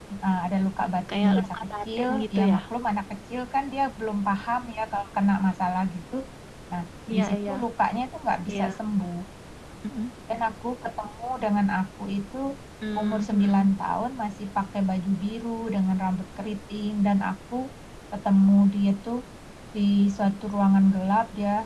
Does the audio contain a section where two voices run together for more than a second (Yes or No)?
Yes